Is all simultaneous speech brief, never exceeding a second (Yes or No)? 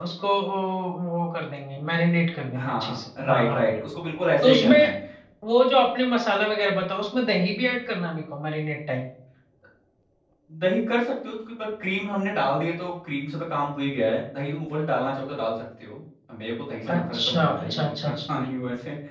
No